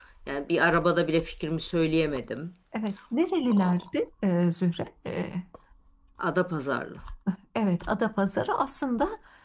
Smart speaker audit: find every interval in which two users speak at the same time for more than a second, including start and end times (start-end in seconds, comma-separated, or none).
none